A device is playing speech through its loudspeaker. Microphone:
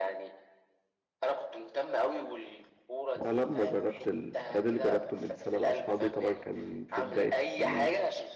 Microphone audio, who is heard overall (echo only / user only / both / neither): both